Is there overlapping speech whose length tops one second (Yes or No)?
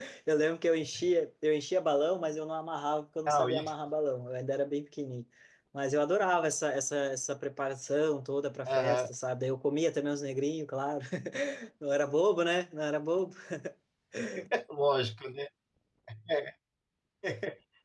No